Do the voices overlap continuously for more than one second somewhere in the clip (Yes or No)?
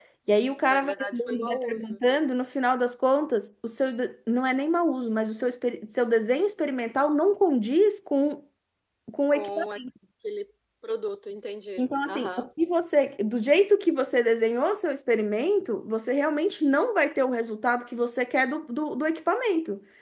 Yes